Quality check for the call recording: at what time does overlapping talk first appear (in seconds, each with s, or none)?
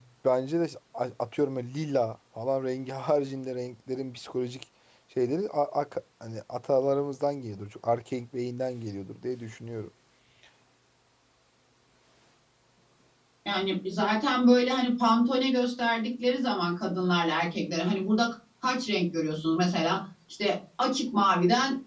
none